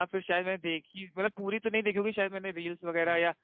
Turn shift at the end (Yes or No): No